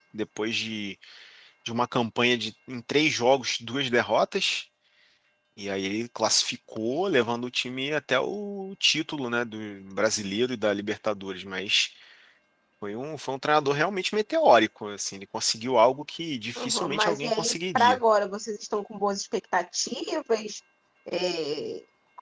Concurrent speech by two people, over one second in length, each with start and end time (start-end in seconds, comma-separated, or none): 16.6-18.0